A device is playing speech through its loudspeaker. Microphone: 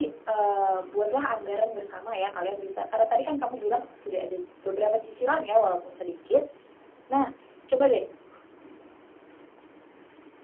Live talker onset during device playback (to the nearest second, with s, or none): none